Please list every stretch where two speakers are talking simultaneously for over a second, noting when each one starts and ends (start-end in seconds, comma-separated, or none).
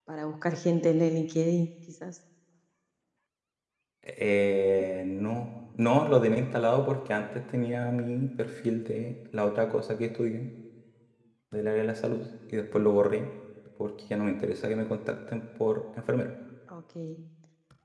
none